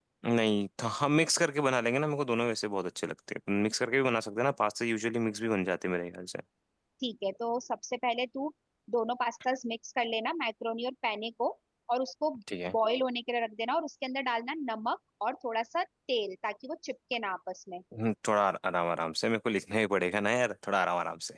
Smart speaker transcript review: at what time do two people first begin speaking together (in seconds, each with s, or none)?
none